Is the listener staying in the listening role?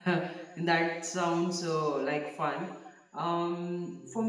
Yes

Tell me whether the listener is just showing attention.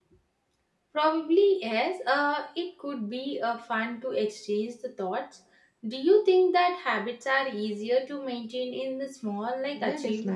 No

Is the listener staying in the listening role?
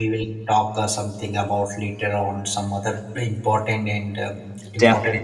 No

